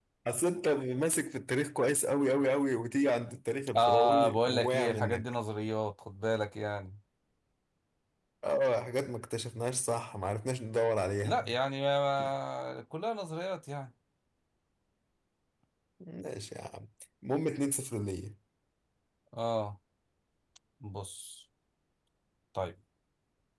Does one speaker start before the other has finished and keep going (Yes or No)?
Yes